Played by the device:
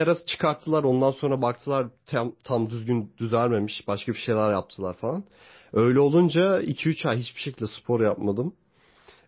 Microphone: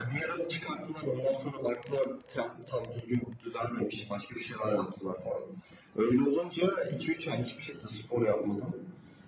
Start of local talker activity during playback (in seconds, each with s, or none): none